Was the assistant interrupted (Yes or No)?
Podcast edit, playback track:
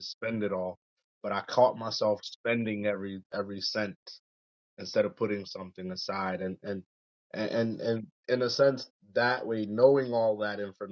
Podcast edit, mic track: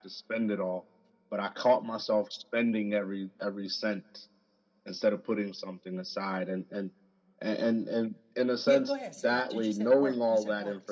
Yes